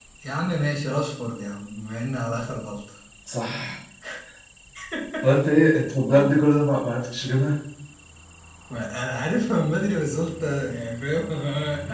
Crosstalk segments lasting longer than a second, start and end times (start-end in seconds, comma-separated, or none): none